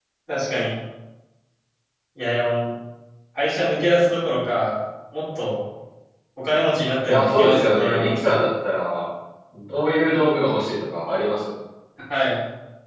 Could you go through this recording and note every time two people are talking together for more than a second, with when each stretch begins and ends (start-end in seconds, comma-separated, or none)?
7.1-8.4